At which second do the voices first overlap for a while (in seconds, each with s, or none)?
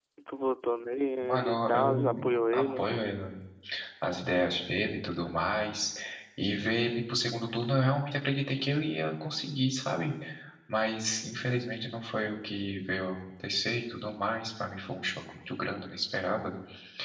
1.2 s